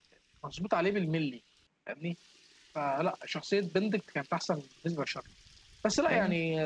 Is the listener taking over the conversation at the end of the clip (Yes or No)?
No